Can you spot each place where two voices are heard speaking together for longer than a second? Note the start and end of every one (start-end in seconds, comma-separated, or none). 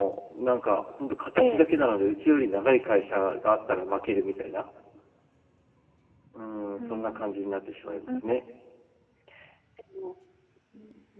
none